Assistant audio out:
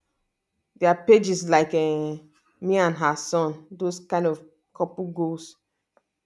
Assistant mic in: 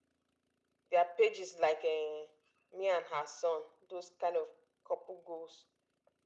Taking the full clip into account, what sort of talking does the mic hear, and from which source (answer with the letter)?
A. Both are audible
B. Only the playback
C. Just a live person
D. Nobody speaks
B